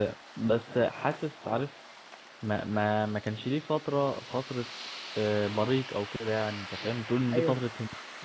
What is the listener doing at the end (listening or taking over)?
taking over